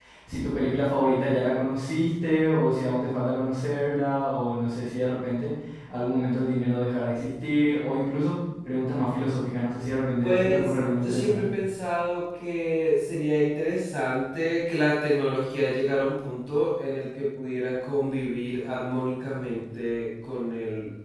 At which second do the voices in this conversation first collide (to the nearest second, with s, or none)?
10 s